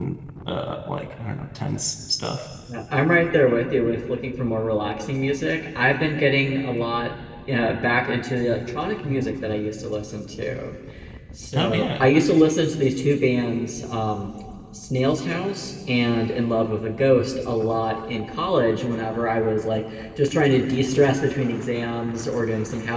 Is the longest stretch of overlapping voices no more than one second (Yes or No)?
Yes